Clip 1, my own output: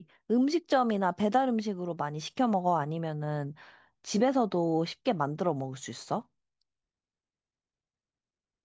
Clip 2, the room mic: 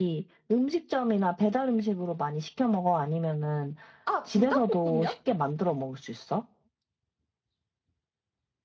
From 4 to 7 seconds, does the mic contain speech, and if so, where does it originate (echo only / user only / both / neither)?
both